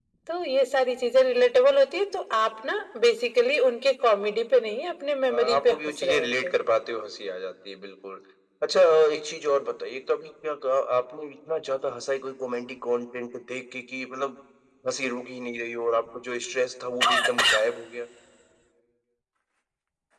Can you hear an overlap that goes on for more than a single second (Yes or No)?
Yes